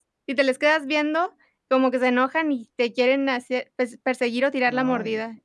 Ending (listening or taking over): taking over